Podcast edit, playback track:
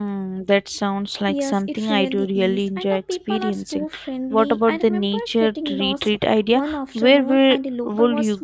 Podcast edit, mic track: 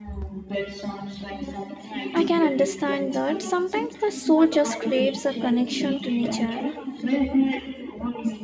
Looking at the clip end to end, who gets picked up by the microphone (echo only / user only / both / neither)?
both